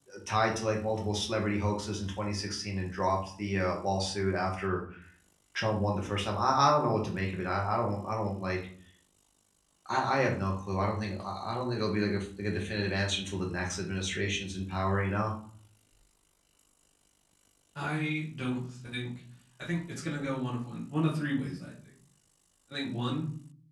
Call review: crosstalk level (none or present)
none